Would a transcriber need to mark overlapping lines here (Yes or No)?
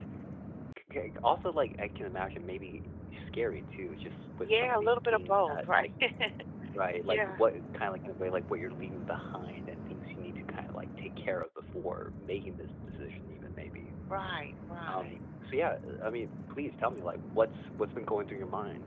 Yes